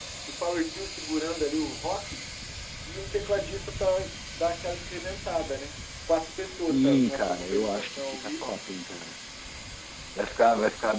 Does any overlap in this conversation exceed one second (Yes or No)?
Yes